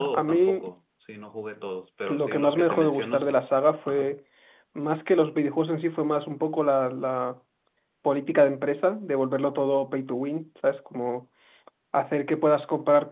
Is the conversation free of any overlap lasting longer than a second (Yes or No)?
No